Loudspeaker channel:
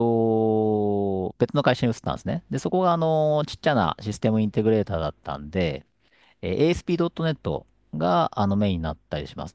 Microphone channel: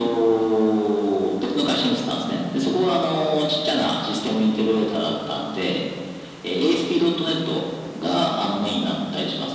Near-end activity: none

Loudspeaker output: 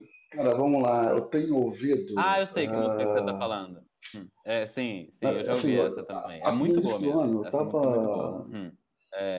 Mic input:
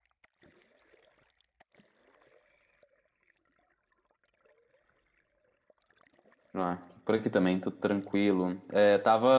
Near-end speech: present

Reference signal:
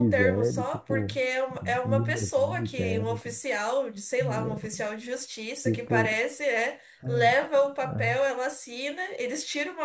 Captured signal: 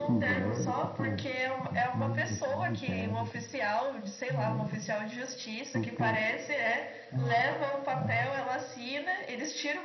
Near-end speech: none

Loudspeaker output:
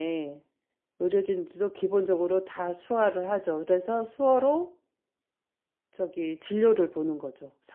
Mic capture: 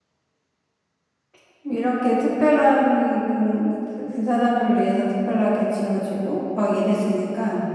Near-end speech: present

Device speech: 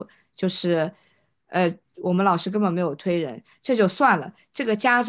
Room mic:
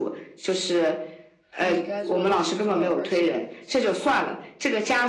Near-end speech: present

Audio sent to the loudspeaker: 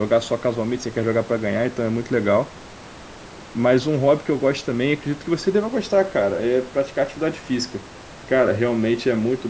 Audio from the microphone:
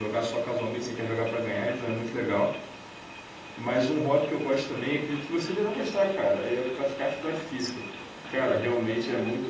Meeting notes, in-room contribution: none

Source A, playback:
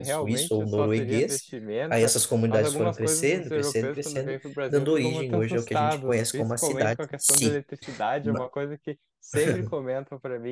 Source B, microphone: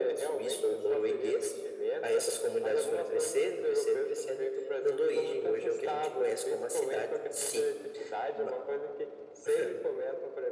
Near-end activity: none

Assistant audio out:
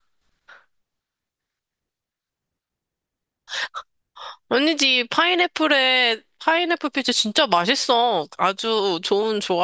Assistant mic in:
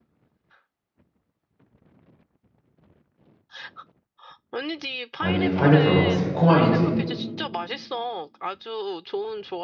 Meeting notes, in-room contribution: present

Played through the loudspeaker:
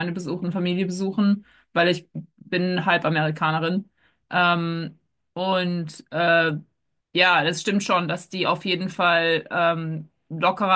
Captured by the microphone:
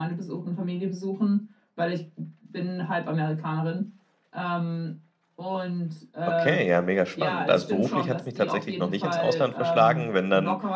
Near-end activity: present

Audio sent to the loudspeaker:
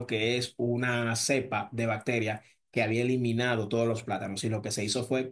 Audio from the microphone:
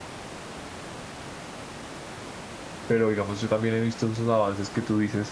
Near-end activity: present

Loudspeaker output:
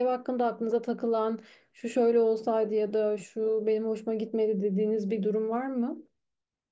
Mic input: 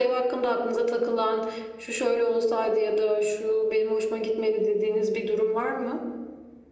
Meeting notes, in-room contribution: none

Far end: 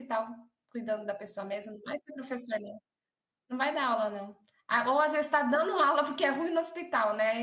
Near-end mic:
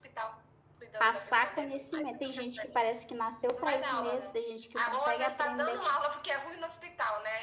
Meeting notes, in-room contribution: present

